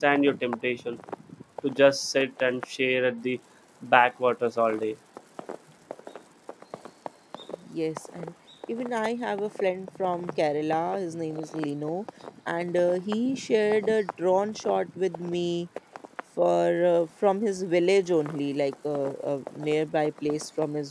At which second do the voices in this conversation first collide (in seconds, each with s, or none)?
none